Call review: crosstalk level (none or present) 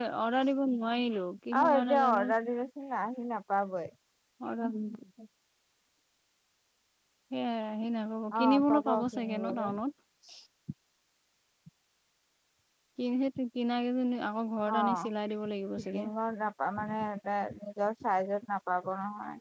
present